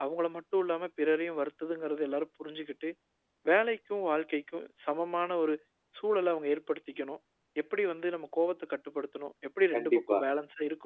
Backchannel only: Yes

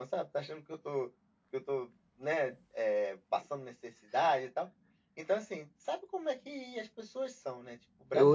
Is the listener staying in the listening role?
No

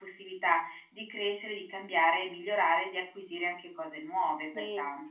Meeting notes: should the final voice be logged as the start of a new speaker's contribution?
Yes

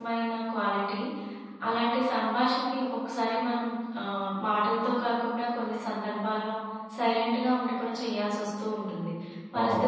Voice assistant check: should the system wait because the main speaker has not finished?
Yes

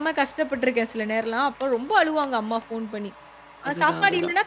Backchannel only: Yes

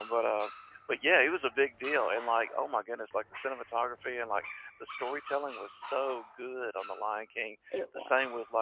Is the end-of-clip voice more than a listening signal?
No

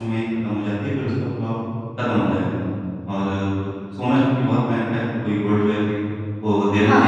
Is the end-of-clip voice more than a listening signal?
No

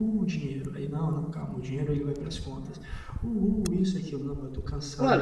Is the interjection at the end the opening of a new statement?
Yes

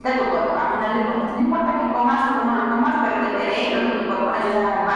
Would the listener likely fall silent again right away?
Yes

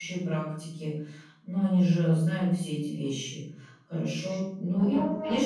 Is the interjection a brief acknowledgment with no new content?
Yes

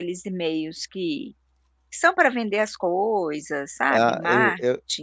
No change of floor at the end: No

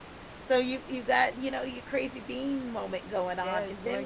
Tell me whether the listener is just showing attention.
No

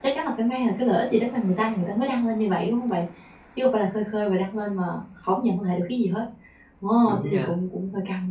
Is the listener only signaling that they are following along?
Yes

